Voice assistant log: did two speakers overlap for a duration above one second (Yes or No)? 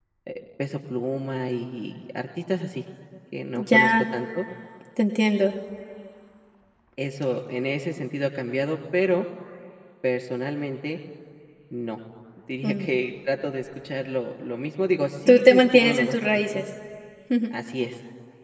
Yes